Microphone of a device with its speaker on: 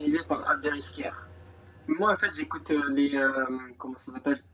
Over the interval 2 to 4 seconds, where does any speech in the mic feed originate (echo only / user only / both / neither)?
echo only